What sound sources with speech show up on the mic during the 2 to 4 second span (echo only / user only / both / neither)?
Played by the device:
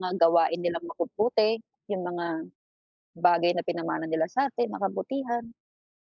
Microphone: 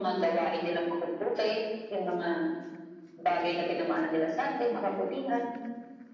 echo only